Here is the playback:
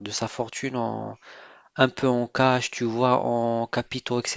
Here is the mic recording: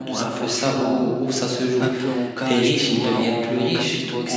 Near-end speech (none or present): present